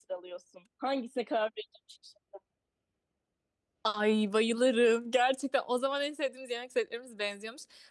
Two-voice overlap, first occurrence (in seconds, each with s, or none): none